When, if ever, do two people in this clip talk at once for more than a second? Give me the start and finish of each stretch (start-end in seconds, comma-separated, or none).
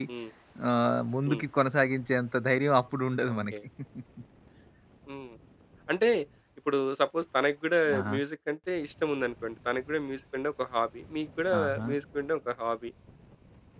none